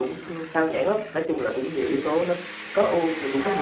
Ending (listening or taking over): taking over